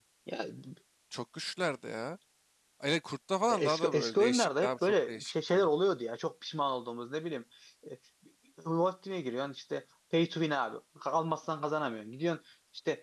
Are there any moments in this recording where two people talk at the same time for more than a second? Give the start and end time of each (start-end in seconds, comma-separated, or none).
3.5-5.7